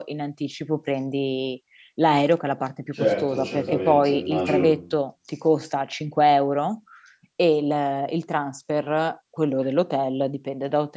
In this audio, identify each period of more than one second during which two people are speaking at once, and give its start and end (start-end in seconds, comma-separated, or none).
3.0-4.8